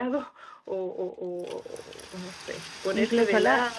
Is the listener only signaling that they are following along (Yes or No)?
Yes